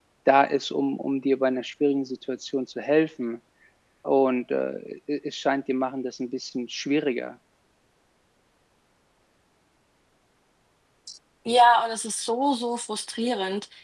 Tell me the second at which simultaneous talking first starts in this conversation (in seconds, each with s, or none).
none